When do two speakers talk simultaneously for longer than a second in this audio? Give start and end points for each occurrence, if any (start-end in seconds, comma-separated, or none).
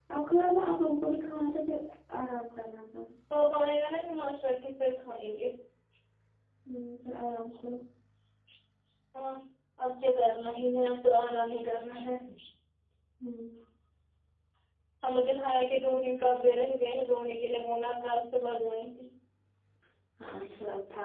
none